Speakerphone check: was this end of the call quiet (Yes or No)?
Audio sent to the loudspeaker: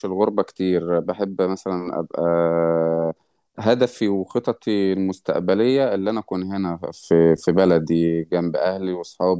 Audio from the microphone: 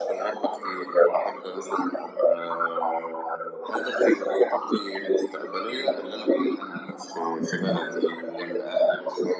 Yes